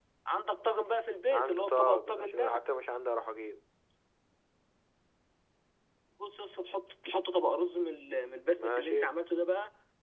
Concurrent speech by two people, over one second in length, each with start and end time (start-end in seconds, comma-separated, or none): 1.3-2.6